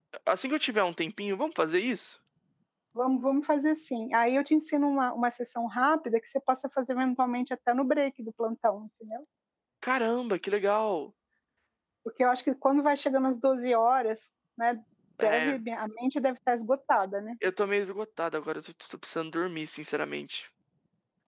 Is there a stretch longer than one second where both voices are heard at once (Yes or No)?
No